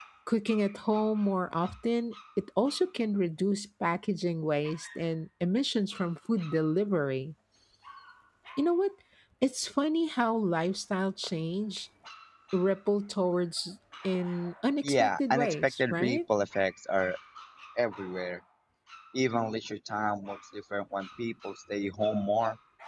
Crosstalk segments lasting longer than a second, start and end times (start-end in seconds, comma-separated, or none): 14.8-16.2